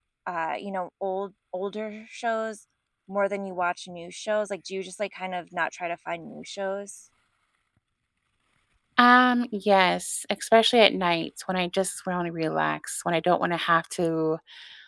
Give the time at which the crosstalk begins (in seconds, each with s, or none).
none